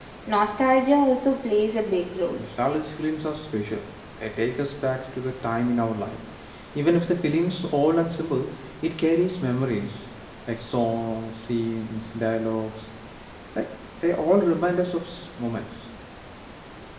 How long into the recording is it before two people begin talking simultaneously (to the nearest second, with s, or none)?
none